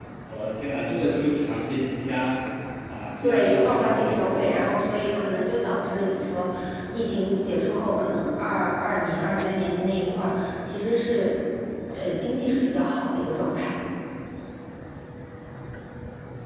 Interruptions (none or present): present